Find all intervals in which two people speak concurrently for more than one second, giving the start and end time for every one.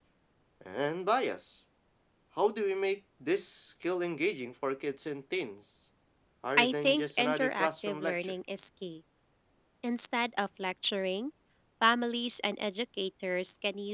6.6-8.3

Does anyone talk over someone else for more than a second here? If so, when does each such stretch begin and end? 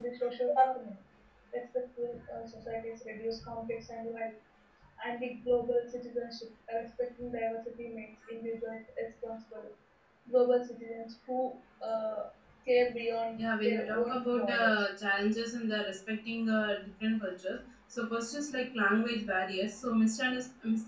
13.4-14.7

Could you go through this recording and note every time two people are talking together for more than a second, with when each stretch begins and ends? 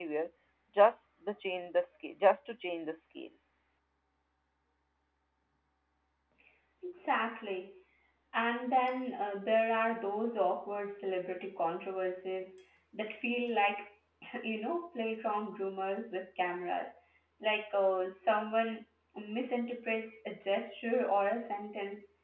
none

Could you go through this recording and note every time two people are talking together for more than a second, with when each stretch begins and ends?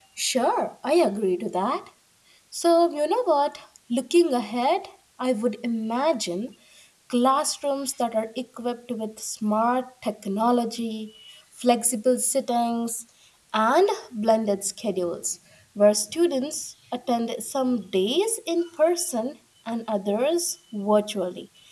none

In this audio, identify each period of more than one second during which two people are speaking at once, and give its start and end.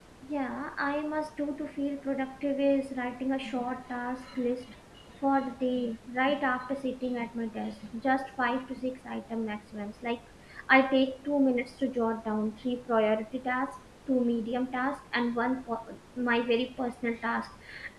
none

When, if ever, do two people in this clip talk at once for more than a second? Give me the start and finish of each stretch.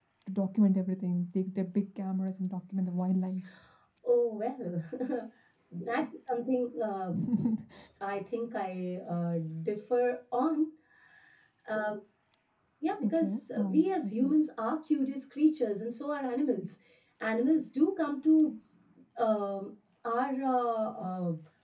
13.0-14.3

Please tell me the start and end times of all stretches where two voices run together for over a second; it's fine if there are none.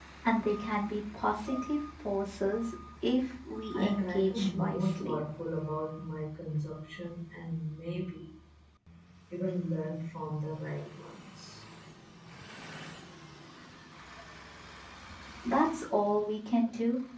3.7-5.2

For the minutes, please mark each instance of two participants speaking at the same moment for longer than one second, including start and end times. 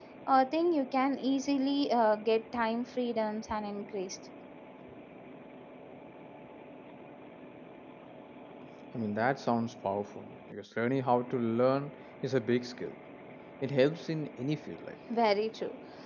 none

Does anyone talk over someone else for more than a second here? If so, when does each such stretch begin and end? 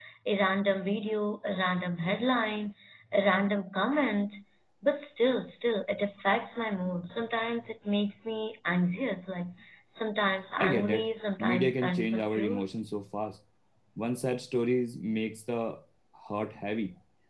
11.4-12.7

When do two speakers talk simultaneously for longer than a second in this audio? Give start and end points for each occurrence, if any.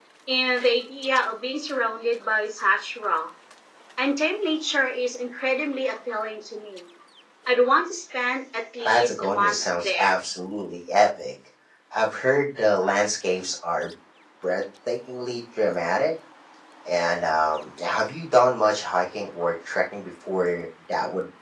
8.8-10.1

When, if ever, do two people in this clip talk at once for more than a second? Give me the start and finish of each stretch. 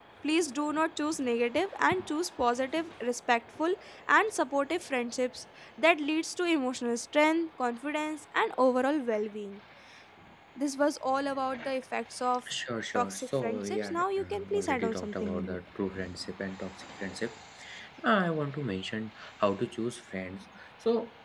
13.0-15.6

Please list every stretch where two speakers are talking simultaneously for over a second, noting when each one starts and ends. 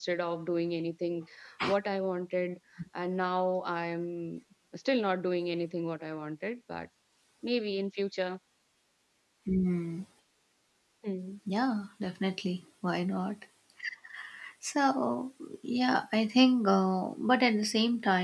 none

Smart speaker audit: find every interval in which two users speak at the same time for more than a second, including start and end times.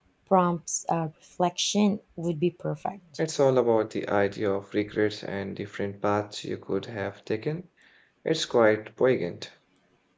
none

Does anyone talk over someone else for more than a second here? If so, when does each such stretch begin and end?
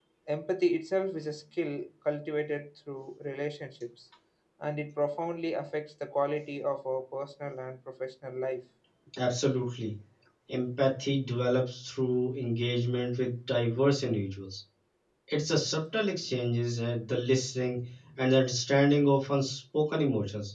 none

